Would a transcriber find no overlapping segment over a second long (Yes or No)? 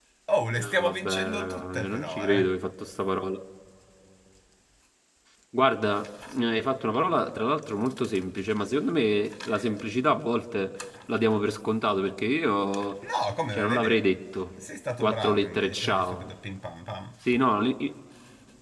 No